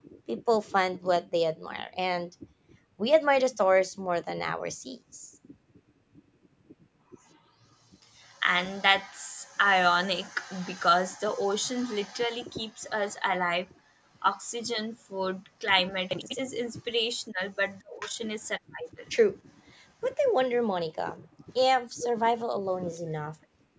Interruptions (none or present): none